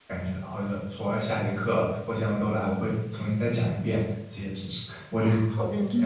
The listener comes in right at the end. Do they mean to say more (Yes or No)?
Yes